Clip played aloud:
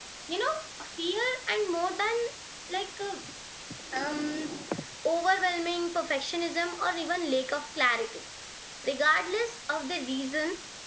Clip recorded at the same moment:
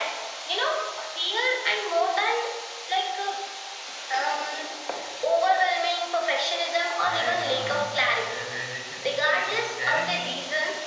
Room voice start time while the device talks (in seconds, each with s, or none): 7.0 s